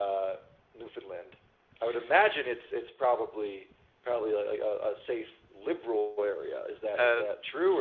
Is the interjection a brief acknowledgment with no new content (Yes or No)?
No